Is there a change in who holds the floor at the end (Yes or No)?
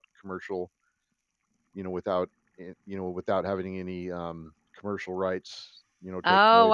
Yes